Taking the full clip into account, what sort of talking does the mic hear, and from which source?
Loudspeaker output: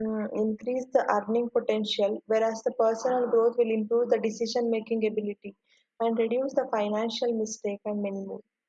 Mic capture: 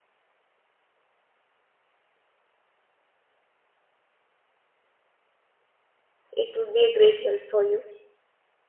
user only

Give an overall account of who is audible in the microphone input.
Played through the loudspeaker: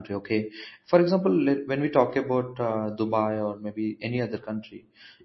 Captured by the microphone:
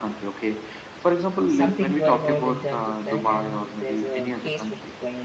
both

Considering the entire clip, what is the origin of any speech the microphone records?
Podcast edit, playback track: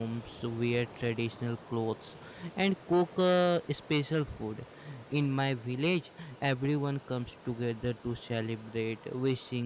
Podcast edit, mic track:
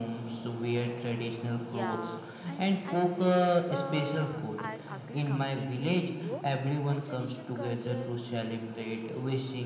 both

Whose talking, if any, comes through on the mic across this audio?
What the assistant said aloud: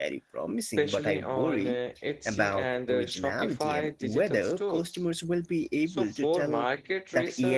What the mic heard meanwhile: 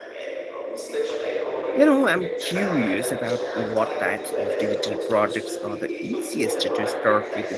both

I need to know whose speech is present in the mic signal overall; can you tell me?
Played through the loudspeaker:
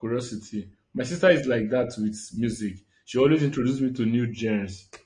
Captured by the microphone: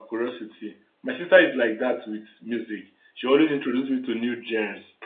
echo only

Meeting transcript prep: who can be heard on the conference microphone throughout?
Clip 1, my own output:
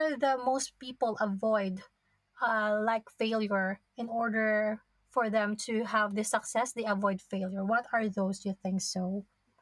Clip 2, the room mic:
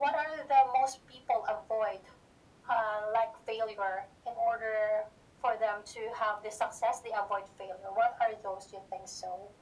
echo only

